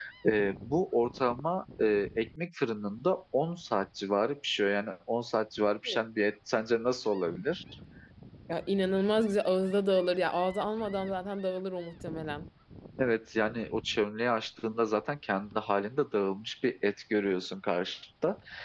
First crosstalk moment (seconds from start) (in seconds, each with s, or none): none